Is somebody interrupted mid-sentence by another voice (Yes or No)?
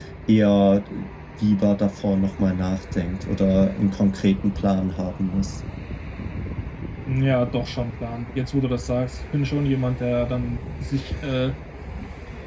No